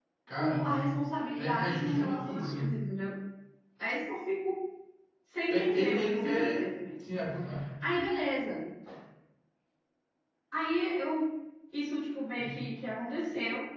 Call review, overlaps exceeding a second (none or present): present